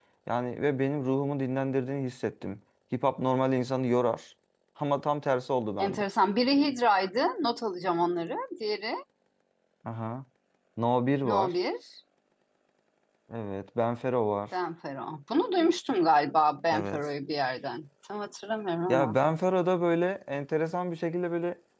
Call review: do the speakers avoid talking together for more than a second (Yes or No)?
Yes